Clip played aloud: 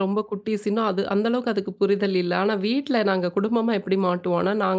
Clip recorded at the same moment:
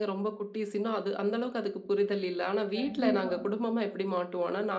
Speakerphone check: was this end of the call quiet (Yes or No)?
No